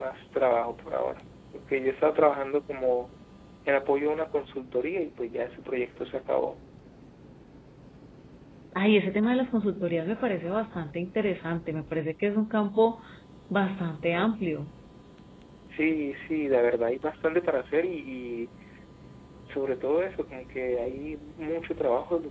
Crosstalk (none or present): none